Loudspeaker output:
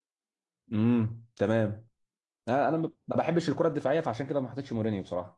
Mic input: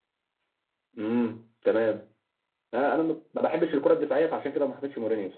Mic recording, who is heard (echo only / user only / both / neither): echo only